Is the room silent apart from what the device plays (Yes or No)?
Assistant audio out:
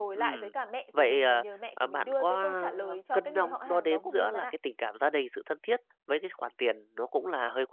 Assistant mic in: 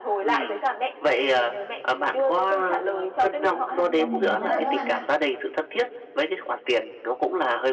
No